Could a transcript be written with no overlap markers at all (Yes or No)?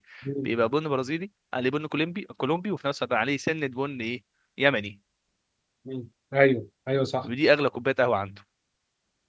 Yes